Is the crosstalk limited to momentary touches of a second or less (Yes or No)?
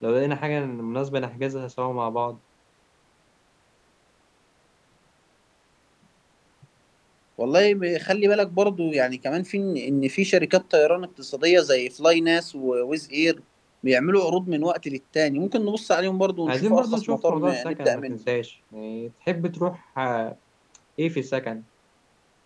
No